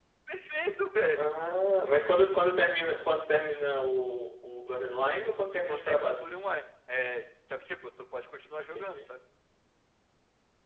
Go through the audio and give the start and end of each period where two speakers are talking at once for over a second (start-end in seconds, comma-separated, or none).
none